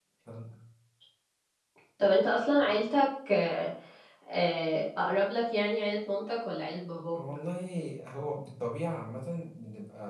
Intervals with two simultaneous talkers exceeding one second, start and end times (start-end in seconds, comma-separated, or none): none